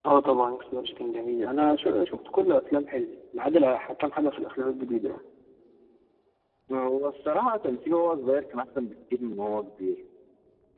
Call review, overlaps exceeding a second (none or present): none